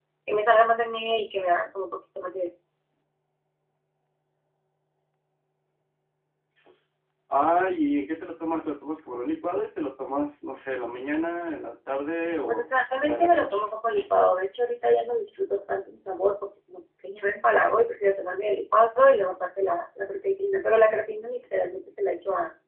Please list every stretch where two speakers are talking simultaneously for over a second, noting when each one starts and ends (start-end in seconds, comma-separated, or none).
12.5-13.7